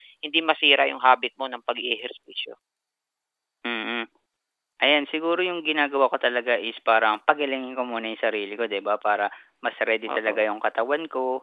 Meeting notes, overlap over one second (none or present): none